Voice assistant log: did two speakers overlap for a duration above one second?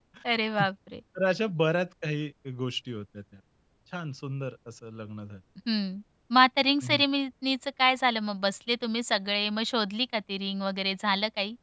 No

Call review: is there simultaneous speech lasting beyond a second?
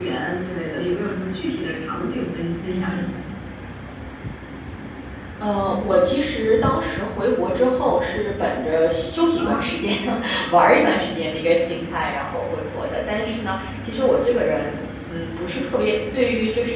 No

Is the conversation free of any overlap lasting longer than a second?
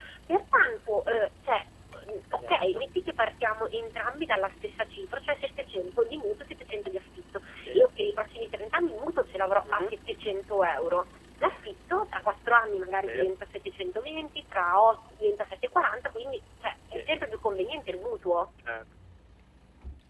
Yes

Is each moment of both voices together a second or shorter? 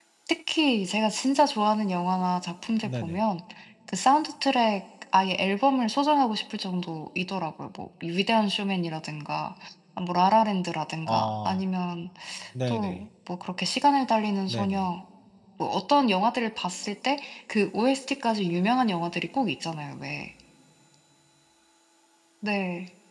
Yes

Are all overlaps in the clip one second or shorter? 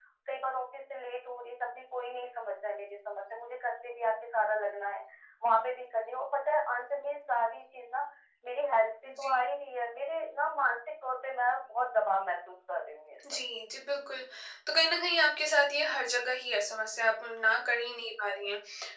Yes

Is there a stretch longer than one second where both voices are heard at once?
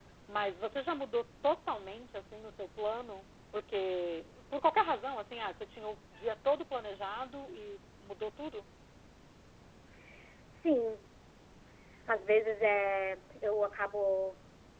No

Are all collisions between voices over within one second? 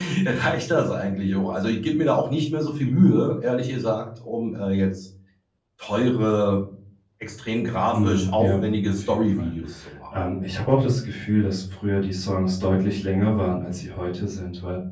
No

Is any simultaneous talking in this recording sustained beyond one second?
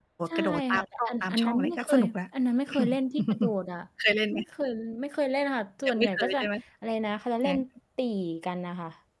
Yes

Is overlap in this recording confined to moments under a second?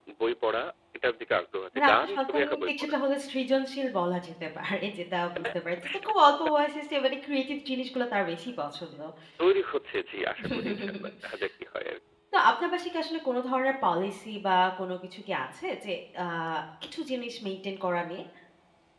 No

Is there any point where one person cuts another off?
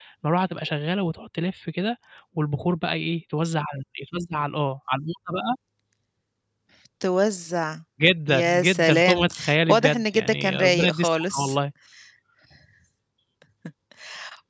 Yes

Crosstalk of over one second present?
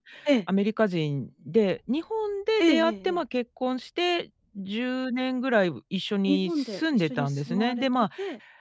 Yes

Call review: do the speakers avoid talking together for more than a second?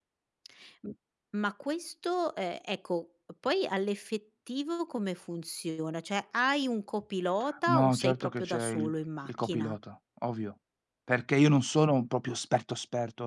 No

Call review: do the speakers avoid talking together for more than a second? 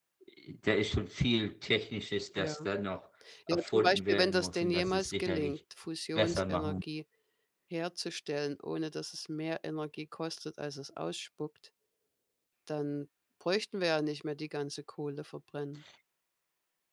No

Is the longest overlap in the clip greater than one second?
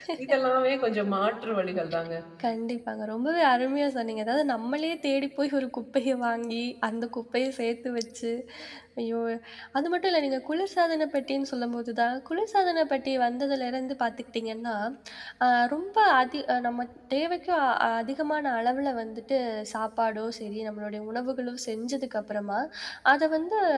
No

